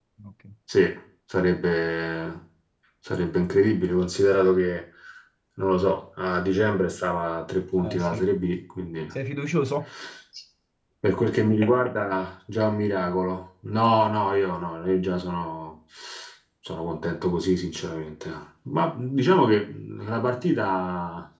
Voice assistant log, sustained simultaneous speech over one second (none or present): none